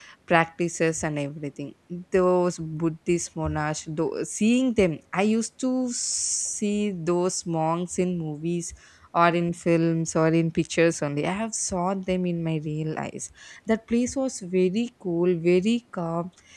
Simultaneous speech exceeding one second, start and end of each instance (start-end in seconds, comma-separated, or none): none